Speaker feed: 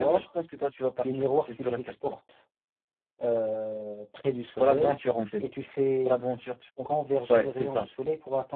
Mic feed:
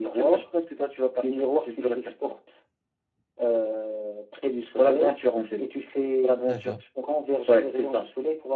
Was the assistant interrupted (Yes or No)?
Yes